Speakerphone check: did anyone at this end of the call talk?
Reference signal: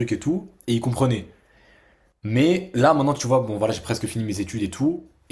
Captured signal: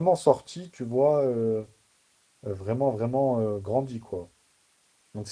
Yes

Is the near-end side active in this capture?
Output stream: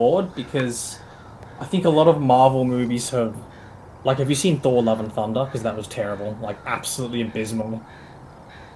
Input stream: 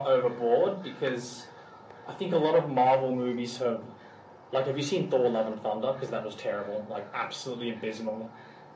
No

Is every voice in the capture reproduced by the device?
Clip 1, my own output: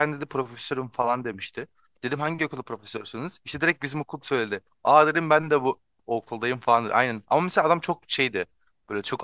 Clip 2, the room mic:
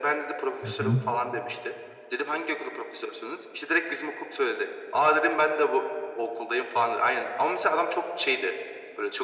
No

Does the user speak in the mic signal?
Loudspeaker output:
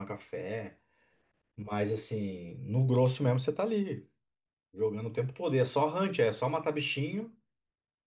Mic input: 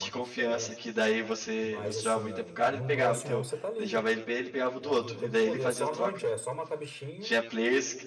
Yes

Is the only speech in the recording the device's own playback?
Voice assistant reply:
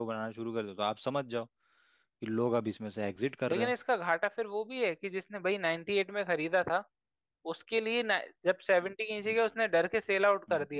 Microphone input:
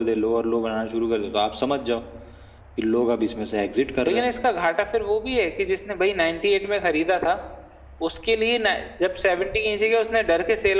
Yes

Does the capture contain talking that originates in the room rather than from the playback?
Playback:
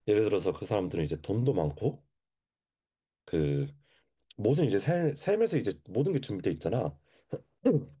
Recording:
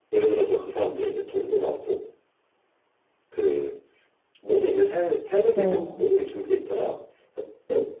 Yes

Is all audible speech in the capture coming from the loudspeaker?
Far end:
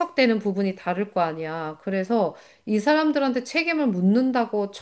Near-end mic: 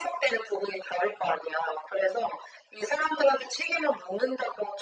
Yes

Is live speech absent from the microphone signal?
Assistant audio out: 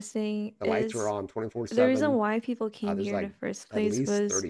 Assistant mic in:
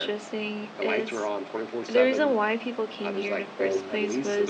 No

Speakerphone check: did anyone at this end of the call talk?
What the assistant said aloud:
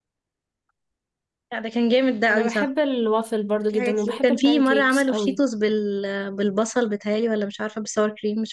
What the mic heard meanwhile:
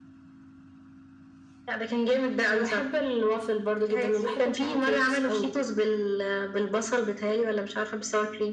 No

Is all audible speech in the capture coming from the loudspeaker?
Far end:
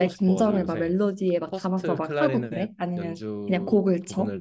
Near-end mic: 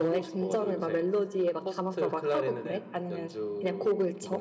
Yes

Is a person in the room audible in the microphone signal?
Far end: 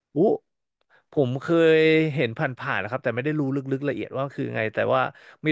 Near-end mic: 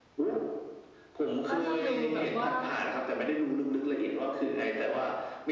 Yes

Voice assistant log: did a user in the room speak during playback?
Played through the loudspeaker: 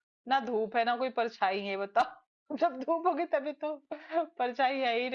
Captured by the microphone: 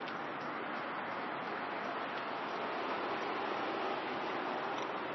No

